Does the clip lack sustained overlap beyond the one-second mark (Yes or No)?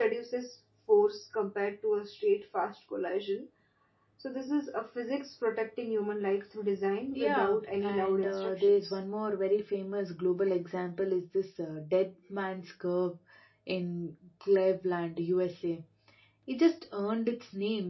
No